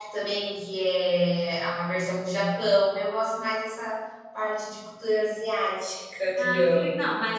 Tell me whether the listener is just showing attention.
No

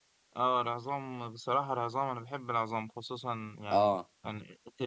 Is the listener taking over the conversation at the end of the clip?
No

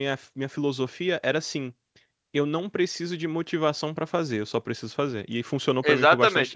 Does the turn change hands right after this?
Yes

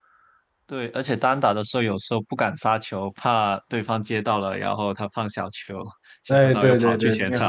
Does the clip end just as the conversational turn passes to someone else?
Yes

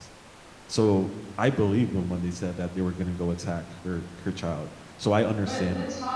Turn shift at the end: Yes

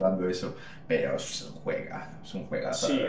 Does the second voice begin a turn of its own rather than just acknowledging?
Yes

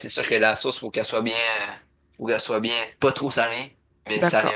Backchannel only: No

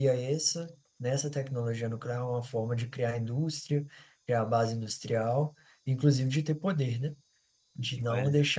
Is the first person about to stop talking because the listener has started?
No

